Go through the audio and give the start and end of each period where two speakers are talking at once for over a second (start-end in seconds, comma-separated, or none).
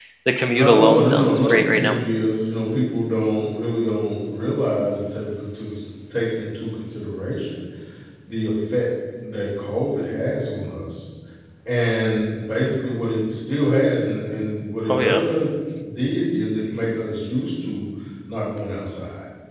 0.5-1.9